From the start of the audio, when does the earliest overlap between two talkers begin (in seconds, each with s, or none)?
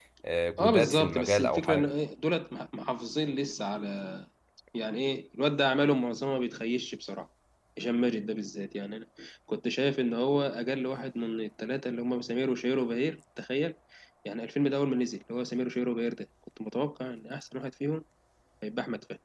0.6 s